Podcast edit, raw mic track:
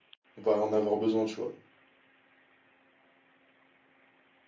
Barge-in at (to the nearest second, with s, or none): 0 s